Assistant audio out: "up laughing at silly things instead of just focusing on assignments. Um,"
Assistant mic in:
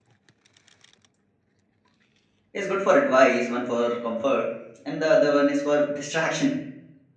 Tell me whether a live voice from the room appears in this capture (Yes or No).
Yes